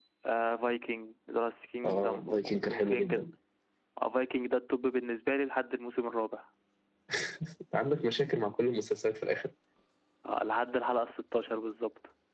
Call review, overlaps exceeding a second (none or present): present